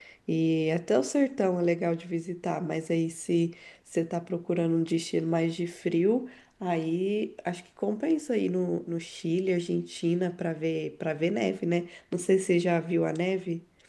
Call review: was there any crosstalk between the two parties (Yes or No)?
No